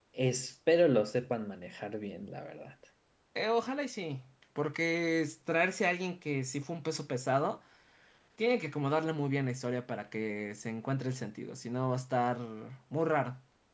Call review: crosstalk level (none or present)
none